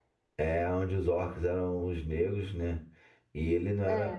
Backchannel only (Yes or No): Yes